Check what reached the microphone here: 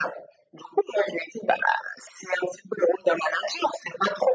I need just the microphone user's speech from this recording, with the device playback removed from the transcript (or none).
none